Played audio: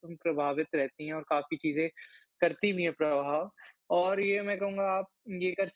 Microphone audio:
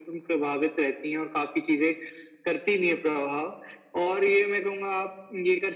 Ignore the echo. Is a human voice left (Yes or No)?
No